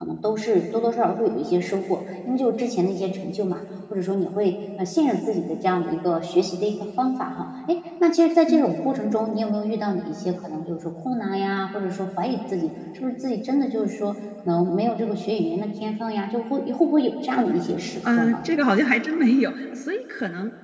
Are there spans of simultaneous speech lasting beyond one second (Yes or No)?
No